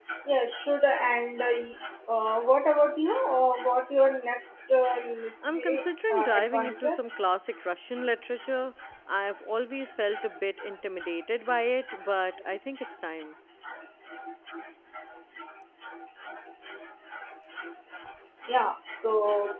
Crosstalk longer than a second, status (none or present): present